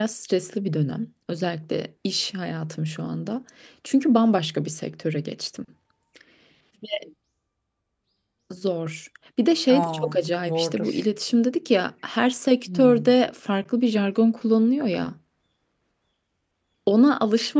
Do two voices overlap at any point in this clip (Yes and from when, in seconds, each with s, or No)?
Yes, from 9.7 s